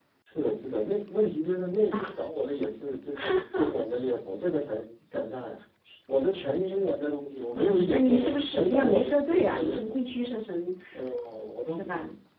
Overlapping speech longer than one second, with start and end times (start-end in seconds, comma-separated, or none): 7.6-10.0